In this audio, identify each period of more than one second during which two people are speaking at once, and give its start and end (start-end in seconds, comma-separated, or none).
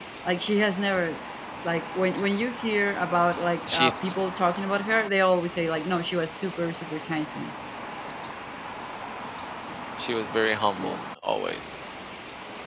none